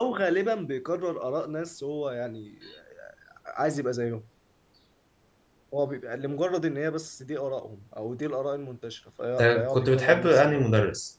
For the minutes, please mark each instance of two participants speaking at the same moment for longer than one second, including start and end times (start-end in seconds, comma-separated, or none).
9.4-10.6